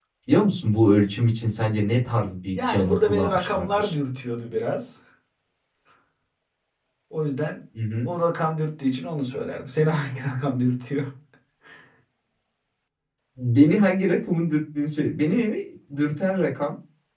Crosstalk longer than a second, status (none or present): present